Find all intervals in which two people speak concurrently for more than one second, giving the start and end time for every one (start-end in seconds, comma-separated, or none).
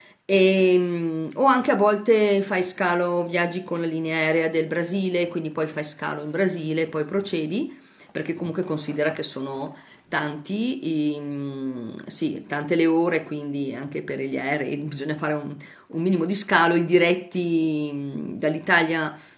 none